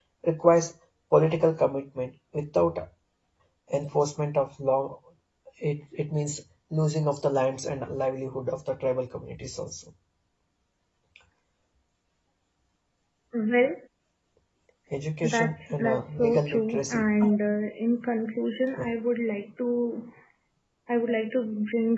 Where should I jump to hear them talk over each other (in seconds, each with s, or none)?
15.2 s